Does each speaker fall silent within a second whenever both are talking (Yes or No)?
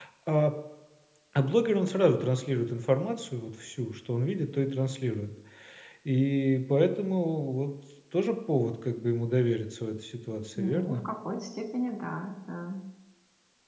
Yes